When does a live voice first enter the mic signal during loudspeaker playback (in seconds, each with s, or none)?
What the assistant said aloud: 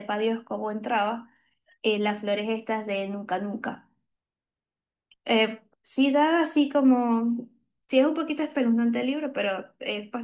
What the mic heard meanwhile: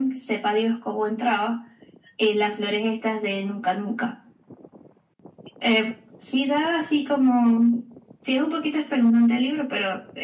none